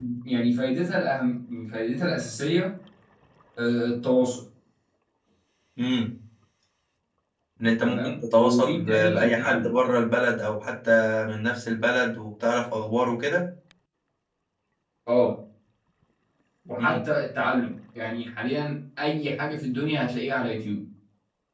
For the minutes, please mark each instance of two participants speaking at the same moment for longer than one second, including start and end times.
7.8-9.8

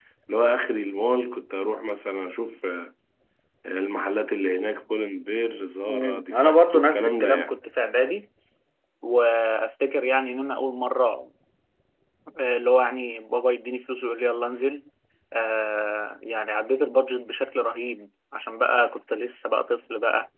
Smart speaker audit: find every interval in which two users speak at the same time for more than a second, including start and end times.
5.9-7.5

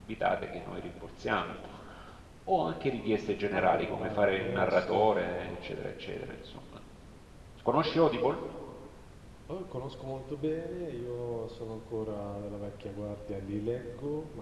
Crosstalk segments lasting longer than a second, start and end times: 3.5-5.1

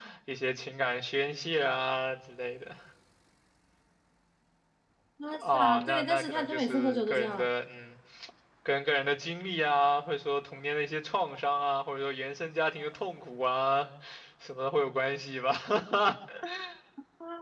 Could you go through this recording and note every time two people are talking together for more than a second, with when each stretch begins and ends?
5.4-7.5

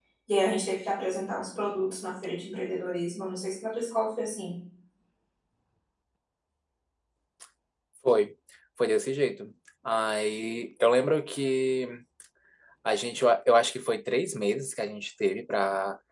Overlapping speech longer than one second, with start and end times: none

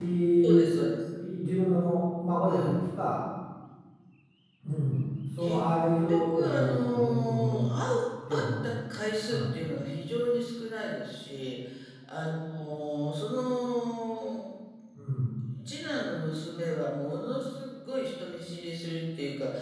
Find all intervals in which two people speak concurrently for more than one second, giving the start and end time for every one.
6.1-7.6

